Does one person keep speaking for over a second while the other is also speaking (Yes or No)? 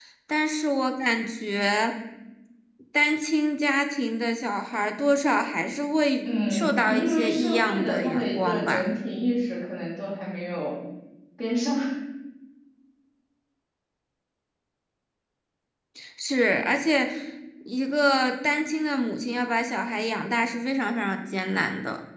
Yes